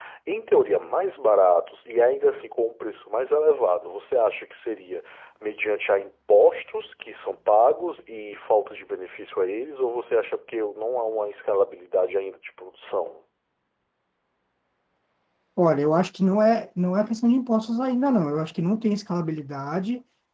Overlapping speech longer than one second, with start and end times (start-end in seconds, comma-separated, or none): none